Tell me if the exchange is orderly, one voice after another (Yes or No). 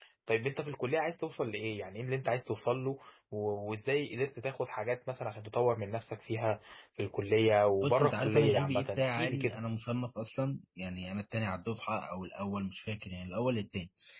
No